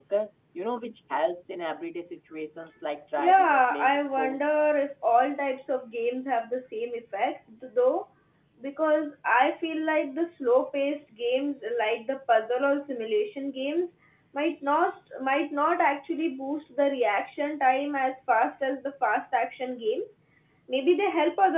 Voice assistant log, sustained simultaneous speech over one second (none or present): present